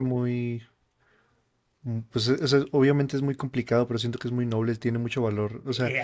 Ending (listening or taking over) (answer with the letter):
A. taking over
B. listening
A